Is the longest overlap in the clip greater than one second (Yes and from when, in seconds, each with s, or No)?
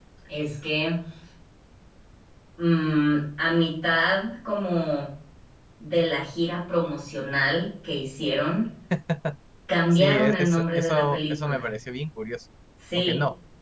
Yes, from 9.9 s